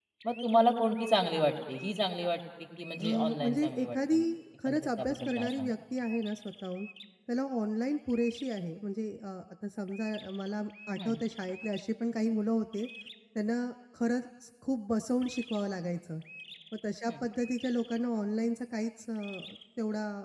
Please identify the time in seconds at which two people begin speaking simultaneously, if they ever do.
3.0 s

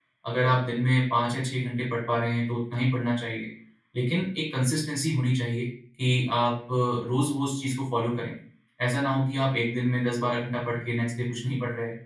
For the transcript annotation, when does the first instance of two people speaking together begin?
none

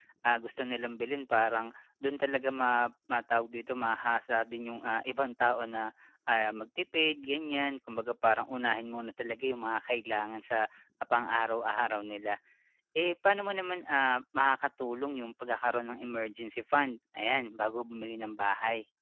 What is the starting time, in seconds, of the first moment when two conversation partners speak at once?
none

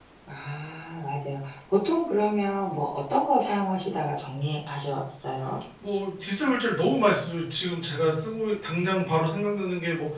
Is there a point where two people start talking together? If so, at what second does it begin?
none

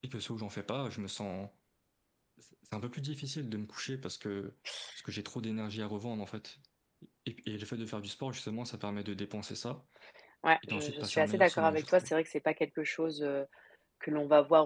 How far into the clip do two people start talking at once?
10.7 s

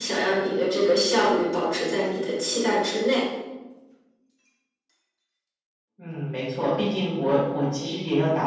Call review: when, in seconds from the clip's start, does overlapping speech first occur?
none

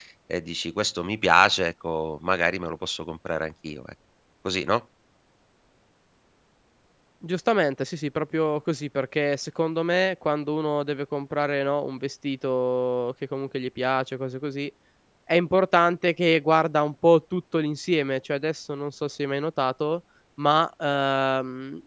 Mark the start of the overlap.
none

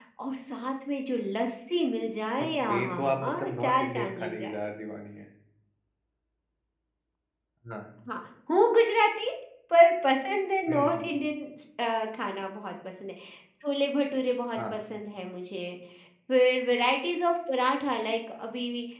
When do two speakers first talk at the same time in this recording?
2.4 s

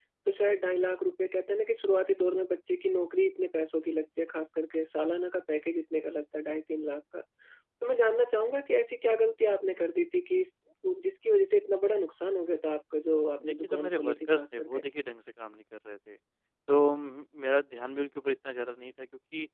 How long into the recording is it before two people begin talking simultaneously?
13.4 s

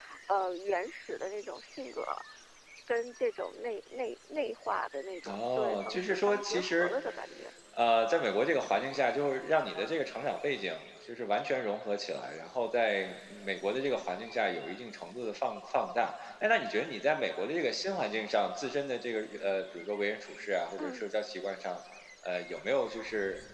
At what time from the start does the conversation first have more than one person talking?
5.3 s

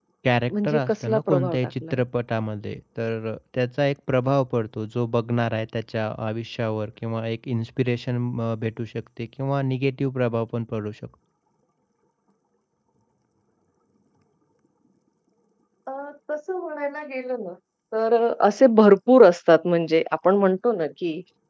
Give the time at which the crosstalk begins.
0.5 s

